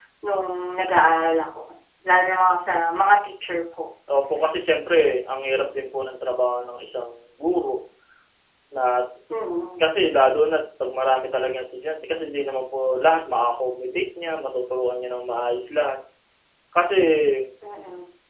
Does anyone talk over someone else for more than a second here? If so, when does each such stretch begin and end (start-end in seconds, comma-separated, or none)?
none